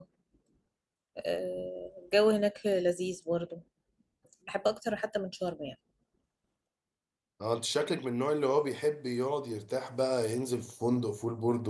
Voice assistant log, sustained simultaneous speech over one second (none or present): none